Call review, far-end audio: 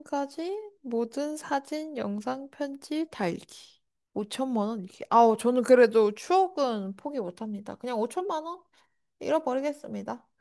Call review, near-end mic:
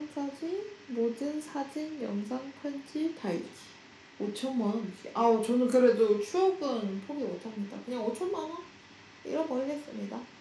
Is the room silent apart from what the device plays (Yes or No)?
Yes